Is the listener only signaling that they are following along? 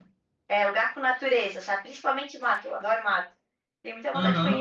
No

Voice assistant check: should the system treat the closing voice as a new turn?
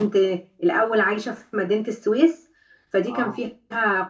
No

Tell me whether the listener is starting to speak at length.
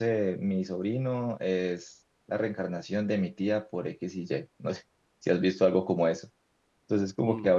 No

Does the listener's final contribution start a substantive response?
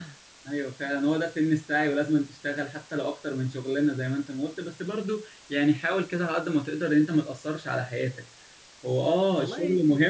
No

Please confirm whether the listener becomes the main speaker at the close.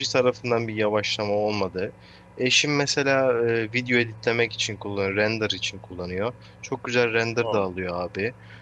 No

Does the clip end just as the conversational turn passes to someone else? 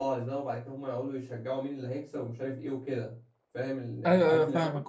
Yes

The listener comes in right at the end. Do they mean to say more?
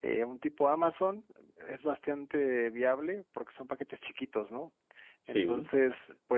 No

